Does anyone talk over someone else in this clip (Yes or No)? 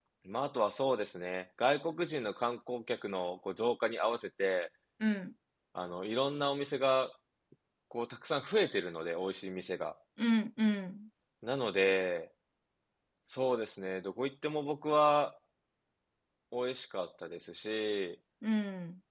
No